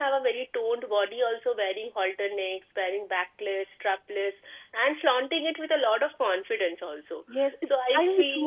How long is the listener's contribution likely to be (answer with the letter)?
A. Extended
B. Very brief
A